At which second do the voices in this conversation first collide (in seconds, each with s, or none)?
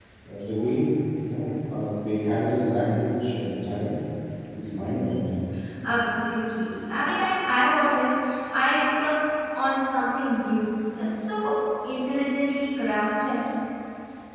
none